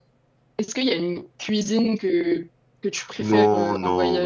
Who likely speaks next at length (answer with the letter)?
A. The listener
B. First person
A